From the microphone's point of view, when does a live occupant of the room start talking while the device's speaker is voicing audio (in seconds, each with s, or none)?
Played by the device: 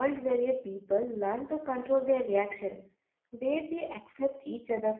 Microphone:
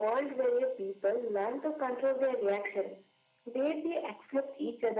none